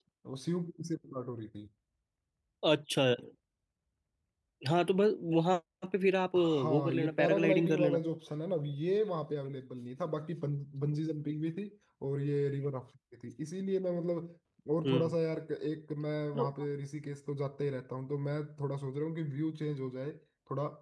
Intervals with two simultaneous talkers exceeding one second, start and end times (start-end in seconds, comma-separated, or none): 6.4-8.0